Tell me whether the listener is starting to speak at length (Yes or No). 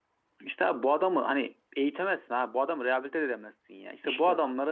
Yes